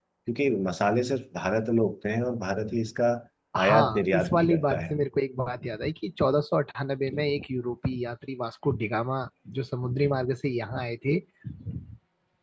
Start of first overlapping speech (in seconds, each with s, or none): 3.6 s